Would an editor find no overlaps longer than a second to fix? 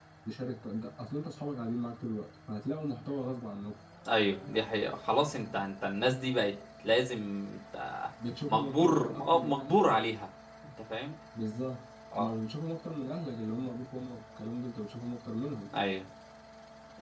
No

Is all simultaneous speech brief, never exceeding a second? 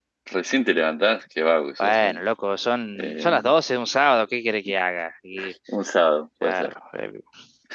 Yes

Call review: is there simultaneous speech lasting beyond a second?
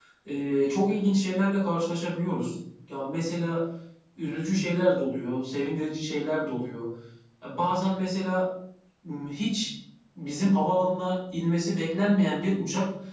No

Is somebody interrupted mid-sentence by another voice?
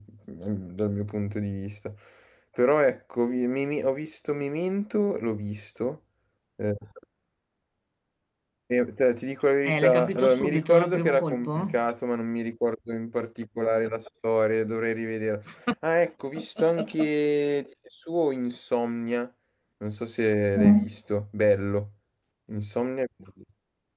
Yes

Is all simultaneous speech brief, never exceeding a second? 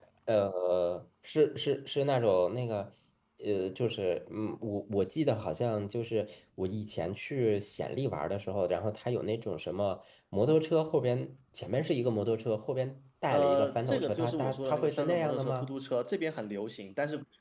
No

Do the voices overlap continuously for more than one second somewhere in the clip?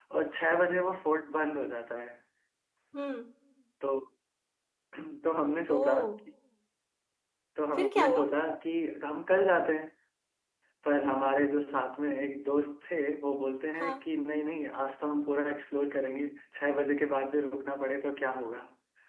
No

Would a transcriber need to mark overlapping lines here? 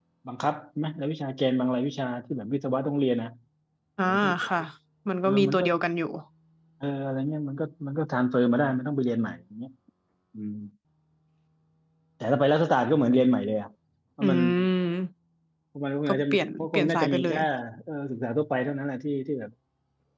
Yes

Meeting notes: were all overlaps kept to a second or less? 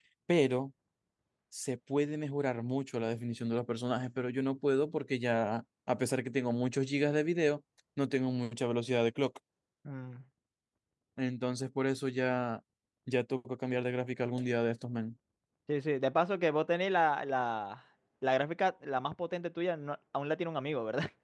Yes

